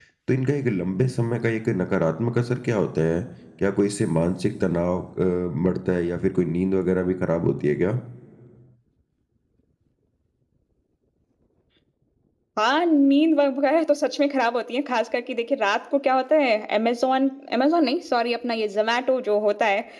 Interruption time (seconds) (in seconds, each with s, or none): none